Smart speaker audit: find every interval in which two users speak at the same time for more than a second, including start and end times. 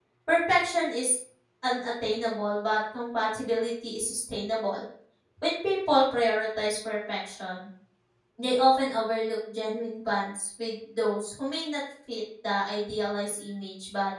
none

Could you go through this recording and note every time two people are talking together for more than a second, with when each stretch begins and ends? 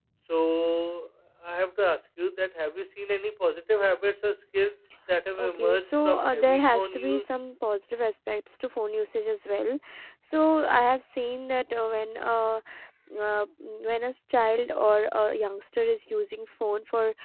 5.4-7.2

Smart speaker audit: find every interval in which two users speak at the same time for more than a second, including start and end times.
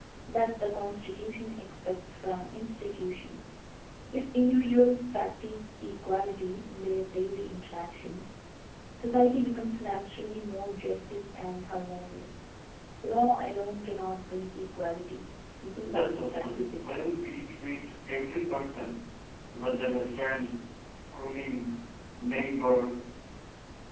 15.8-17.1

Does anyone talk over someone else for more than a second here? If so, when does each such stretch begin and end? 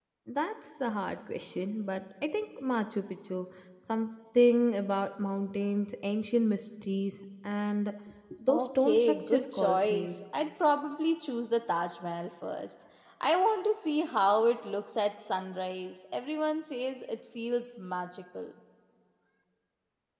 8.5-10.2

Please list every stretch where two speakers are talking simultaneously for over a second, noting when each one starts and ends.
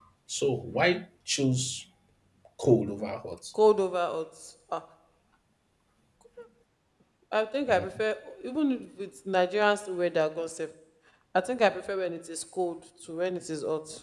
none

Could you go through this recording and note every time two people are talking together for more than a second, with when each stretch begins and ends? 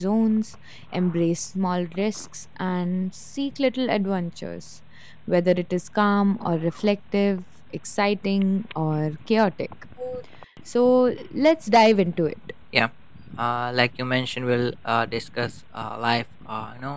none

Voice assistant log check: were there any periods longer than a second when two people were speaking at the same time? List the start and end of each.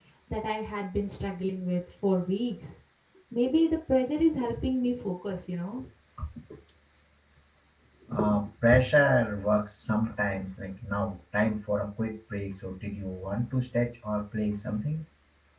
none

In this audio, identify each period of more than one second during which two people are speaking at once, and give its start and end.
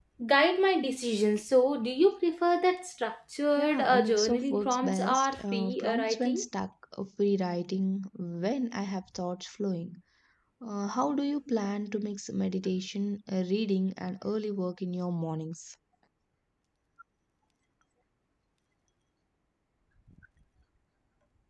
3.6-6.4

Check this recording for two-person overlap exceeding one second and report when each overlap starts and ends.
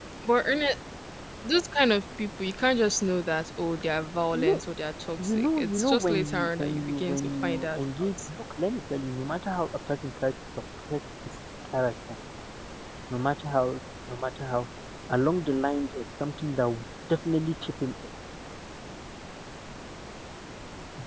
5.2-8.1

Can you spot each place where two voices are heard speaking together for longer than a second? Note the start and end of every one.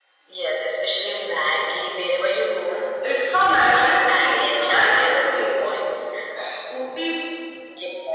3.3-5.7

